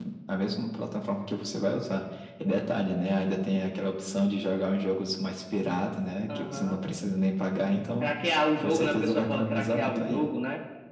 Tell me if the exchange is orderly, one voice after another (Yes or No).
No